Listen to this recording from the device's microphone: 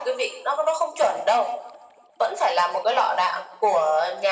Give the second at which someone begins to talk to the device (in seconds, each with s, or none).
none